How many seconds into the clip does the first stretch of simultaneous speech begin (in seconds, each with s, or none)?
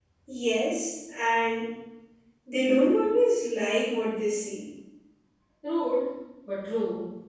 none